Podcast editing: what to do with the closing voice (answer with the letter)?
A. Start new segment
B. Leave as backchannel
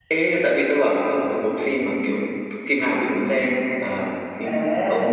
A